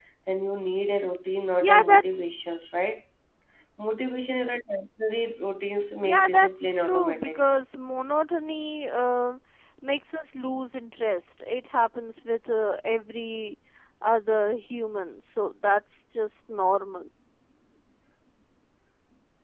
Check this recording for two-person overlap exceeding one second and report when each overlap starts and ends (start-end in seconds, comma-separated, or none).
6.0-7.4